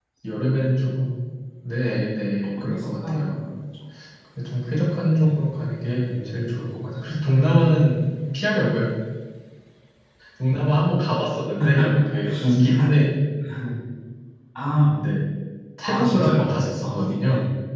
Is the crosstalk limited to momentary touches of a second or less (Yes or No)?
No